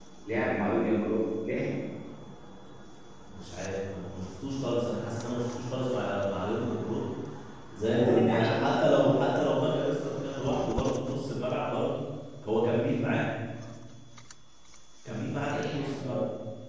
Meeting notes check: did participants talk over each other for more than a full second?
Yes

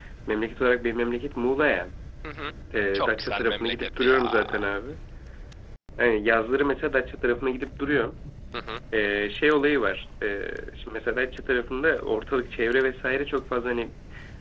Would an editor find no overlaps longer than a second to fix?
No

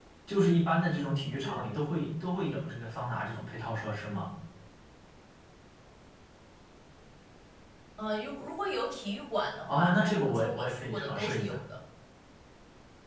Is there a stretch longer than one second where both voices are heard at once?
Yes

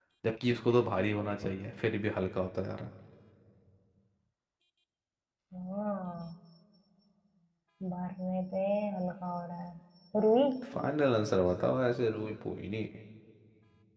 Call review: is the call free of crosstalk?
Yes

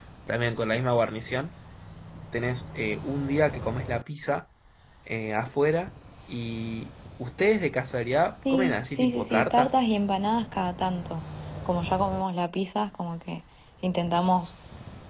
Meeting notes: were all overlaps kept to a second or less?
No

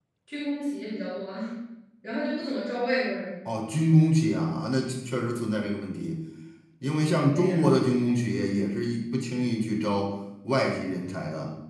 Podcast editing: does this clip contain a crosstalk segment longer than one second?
No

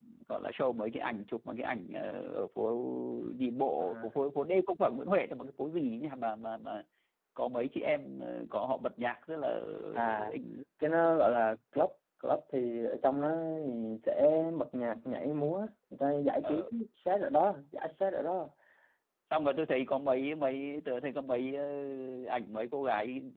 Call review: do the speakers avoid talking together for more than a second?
Yes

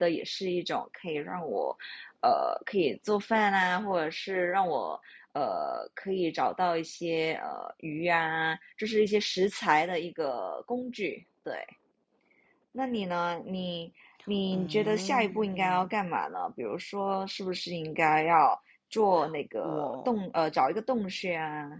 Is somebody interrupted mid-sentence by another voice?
Yes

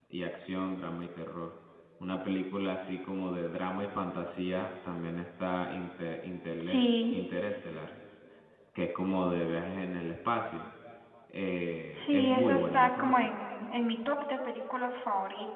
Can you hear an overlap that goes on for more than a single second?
Yes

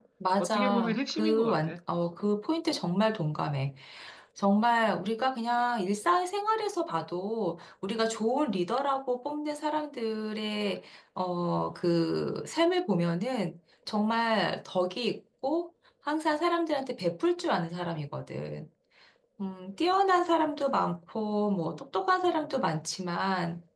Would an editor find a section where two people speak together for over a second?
Yes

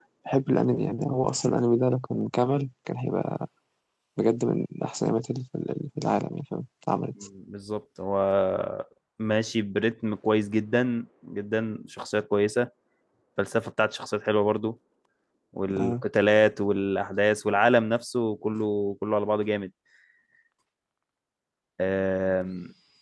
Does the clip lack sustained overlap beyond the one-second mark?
Yes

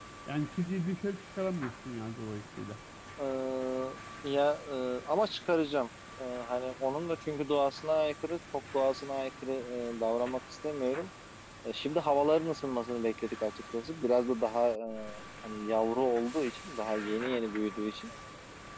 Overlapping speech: No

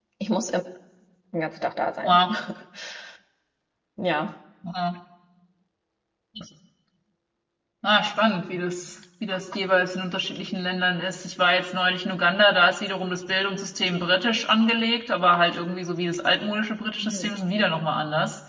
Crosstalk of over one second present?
No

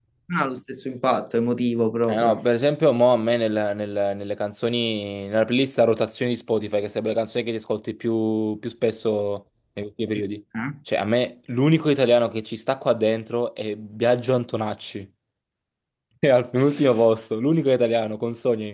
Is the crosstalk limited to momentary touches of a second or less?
Yes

